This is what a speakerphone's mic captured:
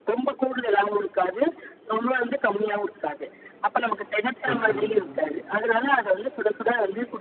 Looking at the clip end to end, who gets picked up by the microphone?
both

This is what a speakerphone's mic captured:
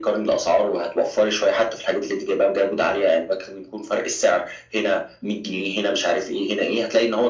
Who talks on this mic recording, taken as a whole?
echo only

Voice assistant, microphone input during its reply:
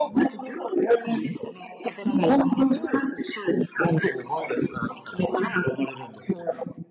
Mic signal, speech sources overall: echo only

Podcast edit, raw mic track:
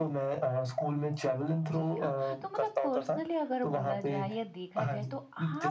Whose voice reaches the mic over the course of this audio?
both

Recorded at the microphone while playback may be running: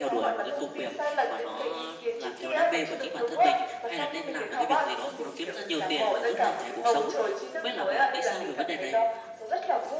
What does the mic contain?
both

